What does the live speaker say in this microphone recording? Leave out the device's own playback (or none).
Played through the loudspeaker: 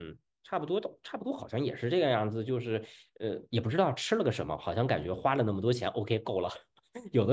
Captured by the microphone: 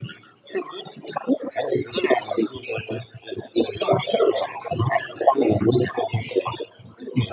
none